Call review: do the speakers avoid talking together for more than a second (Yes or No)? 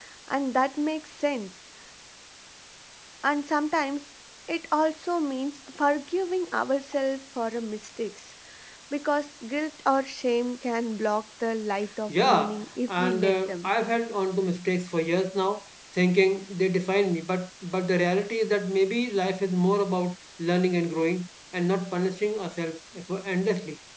No